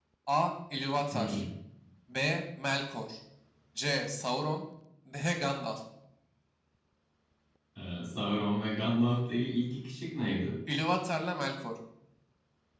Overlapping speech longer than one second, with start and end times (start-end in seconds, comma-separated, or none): none